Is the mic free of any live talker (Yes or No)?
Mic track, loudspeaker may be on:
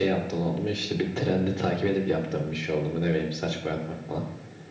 Yes